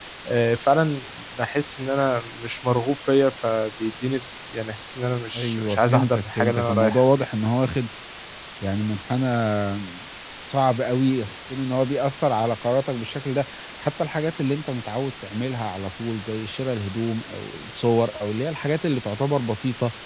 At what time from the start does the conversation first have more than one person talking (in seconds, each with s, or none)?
5.3 s